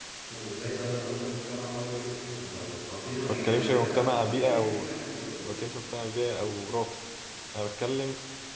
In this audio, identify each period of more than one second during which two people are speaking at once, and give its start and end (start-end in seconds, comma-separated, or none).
3.3-4.9